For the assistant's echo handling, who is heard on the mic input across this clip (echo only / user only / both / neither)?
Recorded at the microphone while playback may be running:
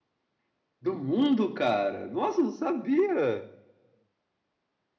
echo only